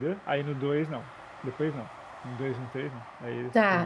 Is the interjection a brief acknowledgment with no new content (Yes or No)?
No